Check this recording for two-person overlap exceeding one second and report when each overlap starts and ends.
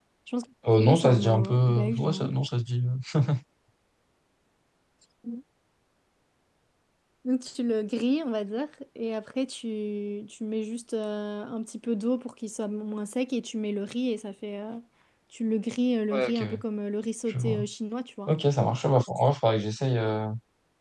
0.8-2.3

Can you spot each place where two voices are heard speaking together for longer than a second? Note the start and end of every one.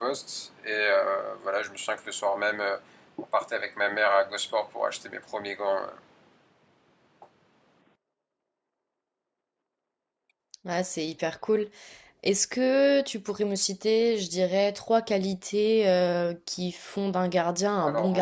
none

